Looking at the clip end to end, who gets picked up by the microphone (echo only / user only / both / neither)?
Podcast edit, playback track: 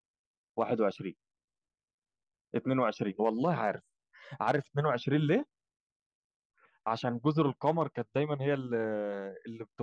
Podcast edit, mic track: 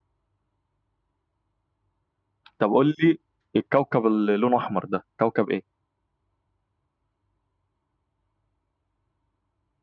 user only